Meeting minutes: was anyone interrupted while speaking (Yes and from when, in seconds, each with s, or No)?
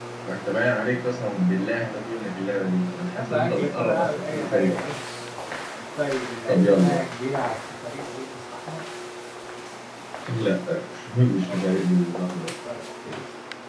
Yes, from 3.0 s